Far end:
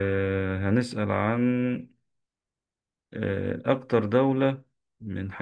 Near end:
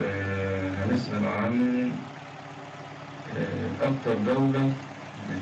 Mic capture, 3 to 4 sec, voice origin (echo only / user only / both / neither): echo only